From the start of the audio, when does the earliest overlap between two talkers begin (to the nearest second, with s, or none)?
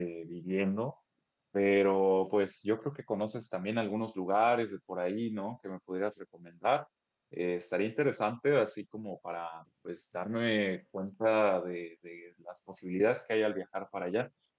none